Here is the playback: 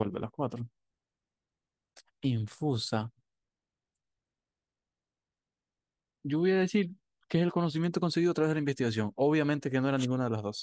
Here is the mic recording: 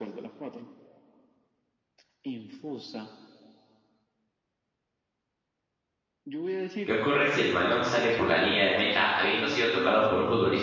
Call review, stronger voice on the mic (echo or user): user